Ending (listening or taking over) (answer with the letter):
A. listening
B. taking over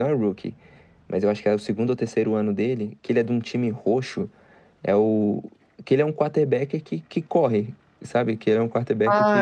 B